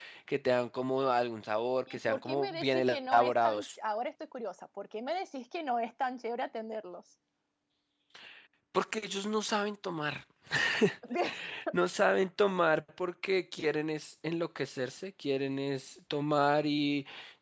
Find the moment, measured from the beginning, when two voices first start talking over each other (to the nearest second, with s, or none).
2 s